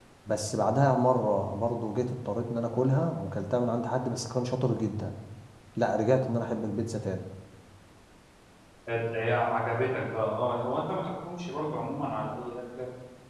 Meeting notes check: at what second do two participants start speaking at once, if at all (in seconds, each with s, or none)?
none